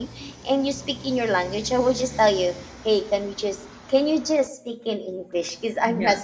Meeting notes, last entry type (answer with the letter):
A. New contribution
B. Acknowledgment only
A